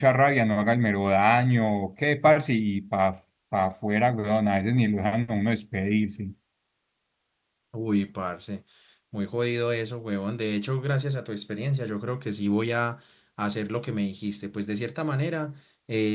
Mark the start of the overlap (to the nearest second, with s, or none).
none